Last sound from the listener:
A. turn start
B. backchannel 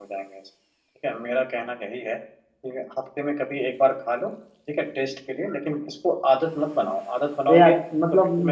A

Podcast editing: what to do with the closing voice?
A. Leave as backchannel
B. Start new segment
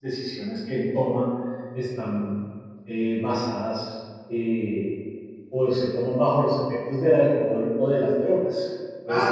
B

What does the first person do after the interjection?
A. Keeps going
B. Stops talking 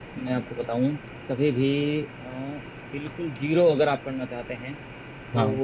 A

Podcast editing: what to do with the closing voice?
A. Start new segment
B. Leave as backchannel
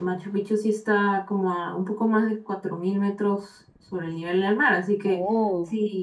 B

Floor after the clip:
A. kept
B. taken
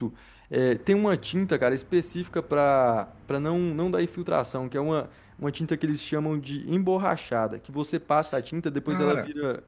A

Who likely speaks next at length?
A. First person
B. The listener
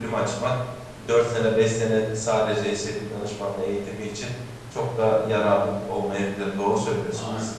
B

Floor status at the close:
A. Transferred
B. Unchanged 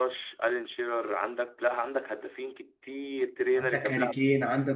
A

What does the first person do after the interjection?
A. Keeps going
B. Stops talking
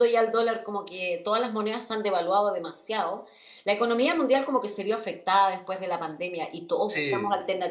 A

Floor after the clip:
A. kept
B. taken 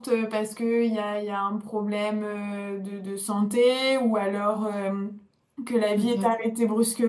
A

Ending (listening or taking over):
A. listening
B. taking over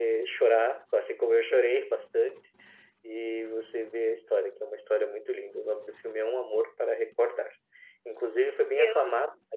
A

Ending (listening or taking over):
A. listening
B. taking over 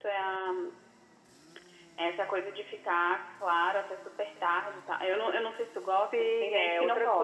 B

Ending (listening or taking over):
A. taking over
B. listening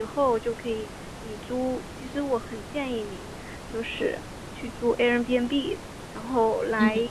B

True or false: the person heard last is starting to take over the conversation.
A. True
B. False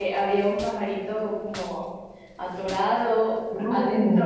B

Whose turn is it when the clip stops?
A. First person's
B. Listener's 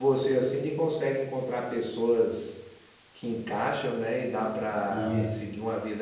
A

